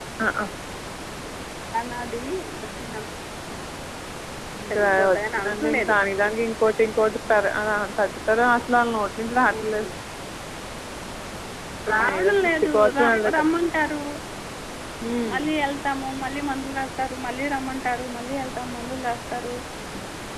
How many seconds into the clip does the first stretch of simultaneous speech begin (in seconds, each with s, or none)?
4.7 s